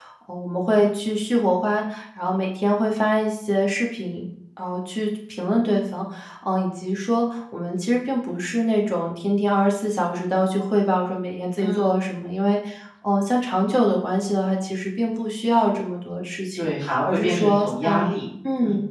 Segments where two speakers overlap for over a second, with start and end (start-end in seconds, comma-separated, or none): 16.6-18.1